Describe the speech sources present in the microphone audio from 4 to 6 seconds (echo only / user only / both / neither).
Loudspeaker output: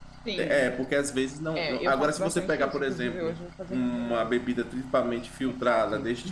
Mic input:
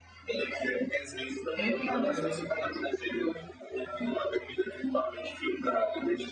echo only